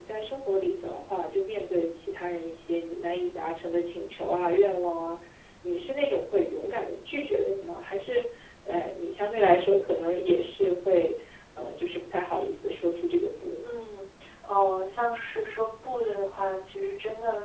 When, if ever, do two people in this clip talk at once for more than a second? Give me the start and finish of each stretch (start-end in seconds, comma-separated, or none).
none